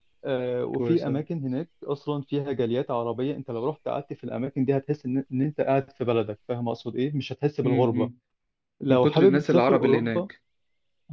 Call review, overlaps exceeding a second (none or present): present